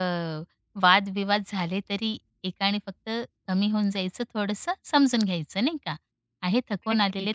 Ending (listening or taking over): listening